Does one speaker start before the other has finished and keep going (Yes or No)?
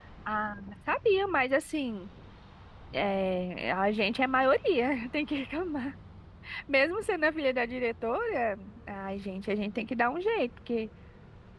No